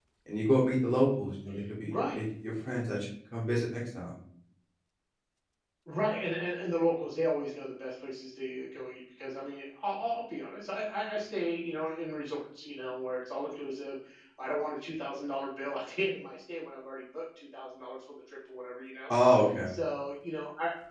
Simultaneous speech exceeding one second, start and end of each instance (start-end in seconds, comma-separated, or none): none